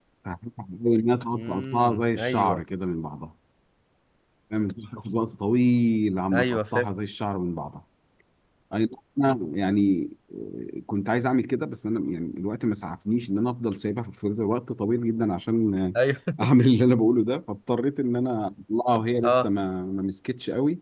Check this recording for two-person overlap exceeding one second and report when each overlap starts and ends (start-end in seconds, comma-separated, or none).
1.3-2.6